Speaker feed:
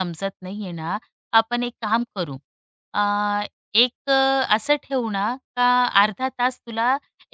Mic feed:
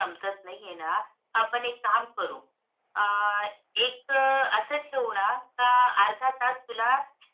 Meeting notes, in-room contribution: none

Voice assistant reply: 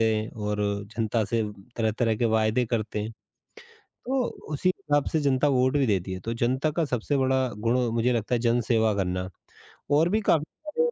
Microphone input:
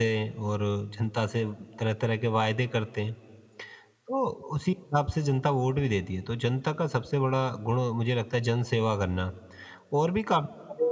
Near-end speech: none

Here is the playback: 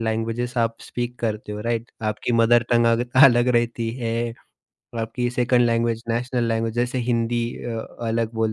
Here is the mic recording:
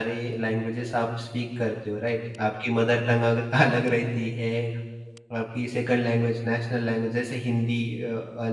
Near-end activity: none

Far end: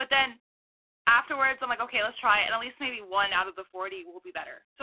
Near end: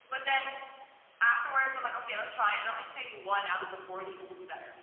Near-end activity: none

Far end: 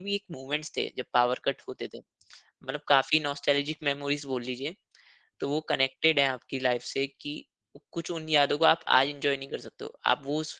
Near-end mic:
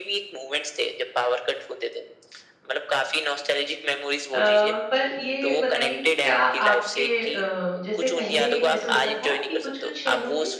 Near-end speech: present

